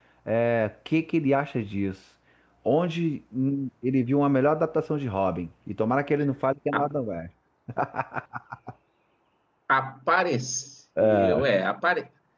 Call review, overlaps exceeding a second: none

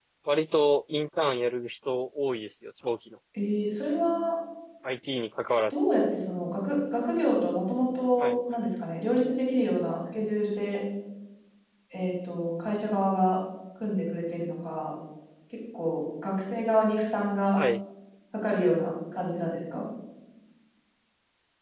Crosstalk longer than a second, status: none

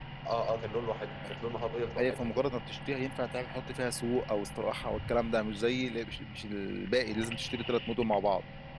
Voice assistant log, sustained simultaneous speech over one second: none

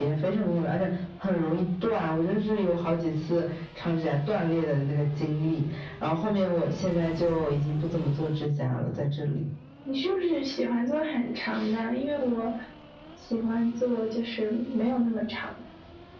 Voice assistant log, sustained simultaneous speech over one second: none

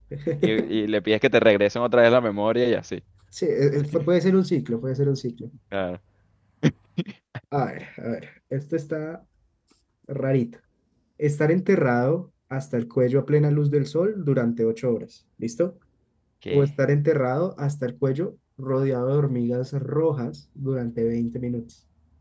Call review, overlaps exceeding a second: none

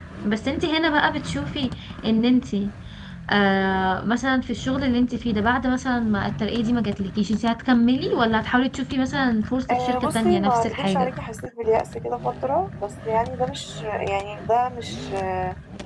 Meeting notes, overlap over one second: present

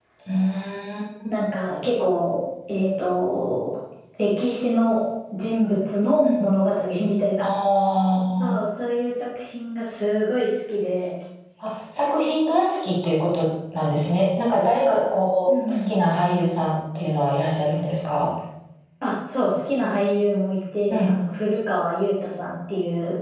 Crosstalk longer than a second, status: none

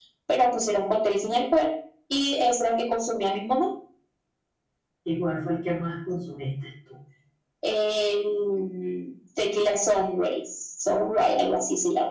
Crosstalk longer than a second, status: none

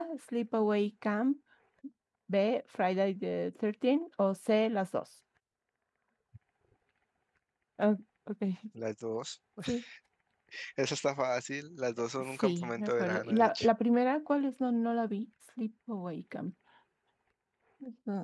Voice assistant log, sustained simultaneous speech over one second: present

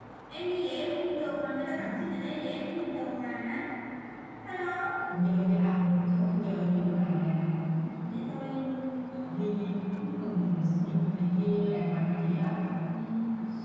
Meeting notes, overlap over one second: none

